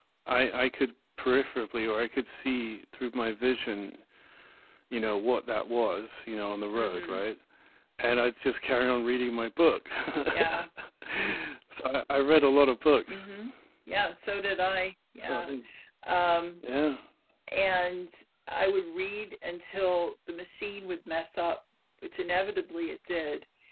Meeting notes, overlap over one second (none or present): none